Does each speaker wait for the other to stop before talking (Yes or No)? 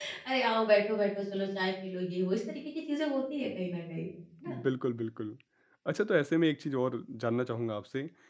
Yes